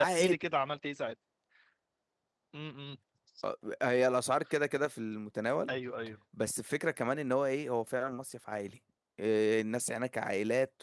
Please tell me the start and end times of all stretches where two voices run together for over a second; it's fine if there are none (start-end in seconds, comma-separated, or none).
none